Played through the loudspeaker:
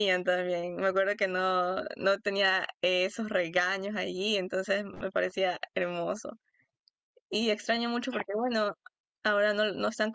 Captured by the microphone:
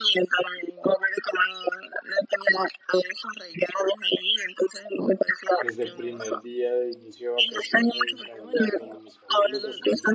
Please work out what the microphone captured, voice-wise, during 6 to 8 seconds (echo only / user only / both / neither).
both